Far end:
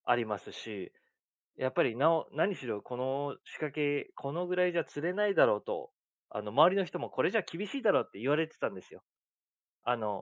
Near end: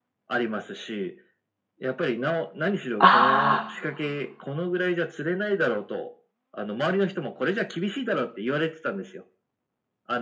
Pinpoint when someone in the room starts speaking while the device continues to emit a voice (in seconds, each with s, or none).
3.0 s